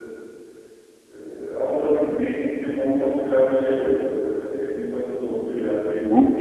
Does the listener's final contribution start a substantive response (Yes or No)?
Yes